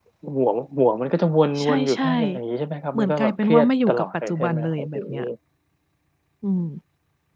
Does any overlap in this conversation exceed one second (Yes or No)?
Yes